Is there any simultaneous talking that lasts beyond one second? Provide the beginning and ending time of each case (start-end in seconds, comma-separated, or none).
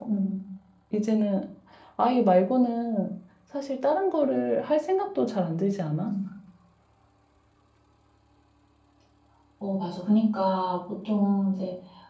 none